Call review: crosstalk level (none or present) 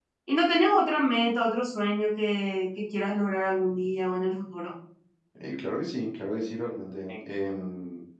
none